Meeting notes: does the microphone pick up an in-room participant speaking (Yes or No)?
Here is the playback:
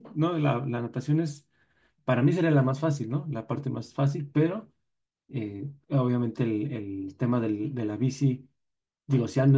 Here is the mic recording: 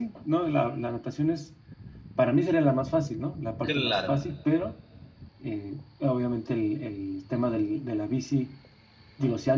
Yes